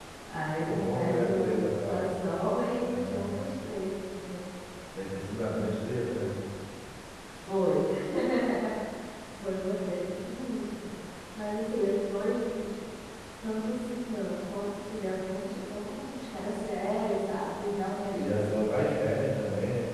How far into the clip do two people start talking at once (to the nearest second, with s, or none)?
1 s